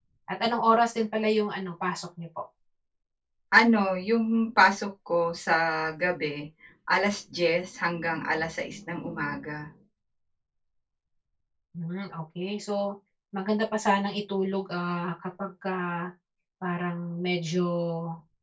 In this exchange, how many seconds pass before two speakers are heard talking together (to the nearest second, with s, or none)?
none